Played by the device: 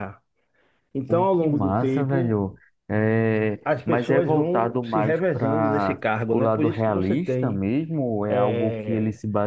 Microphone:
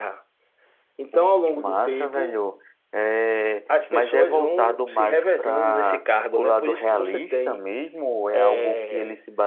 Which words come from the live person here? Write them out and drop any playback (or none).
none